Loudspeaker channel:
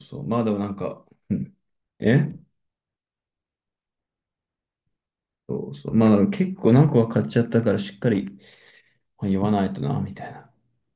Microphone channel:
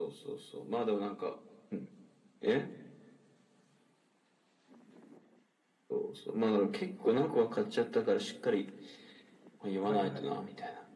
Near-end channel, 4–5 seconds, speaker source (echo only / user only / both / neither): neither